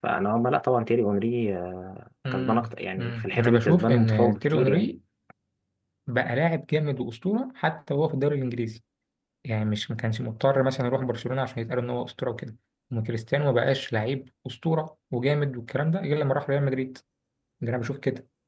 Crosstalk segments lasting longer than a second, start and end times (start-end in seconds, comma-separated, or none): 2.3-4.8